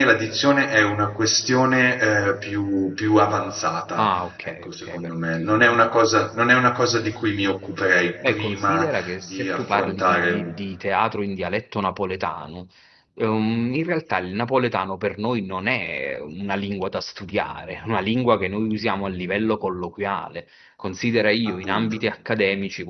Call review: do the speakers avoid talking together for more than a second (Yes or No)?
No